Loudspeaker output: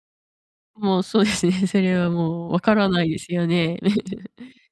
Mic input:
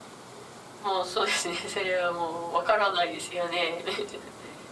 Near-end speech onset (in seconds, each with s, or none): none